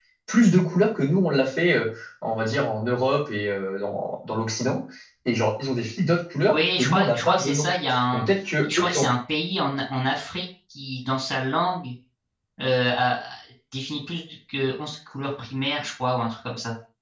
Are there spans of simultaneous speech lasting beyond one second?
Yes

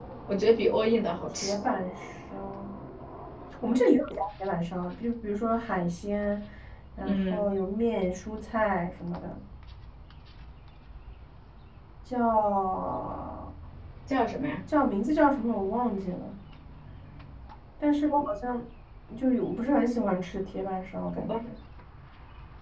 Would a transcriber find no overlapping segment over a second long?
Yes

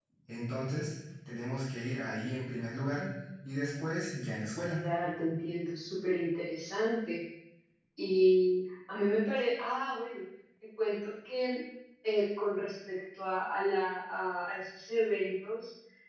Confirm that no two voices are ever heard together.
Yes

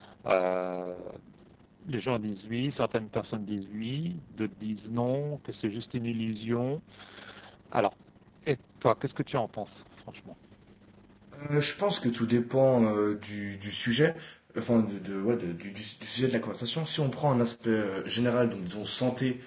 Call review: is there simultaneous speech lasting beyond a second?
No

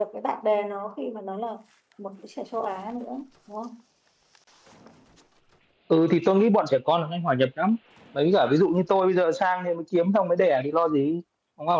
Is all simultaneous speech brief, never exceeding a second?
Yes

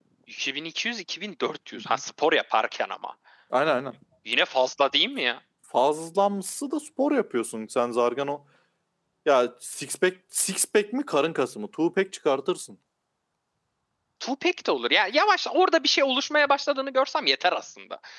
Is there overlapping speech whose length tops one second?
No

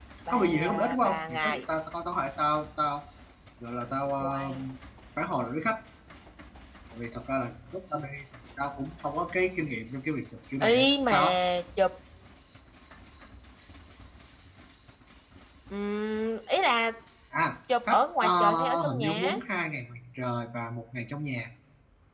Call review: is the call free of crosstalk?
No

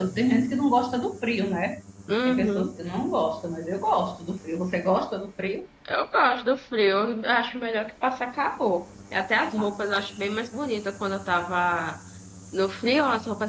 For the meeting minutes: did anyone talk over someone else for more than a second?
No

